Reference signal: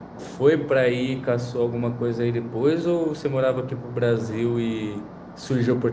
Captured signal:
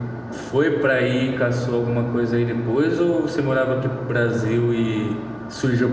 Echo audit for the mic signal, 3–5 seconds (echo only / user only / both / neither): echo only